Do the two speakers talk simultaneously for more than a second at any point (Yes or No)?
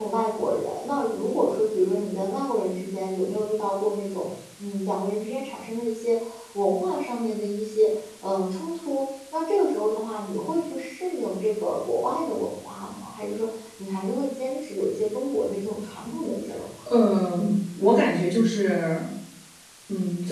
No